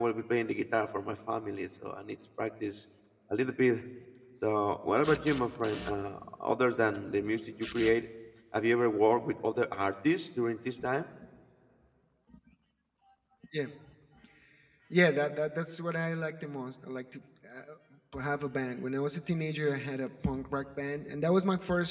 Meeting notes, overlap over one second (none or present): none